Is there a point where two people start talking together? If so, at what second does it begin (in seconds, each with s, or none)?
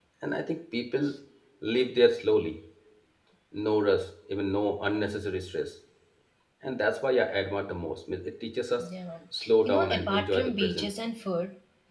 9.7 s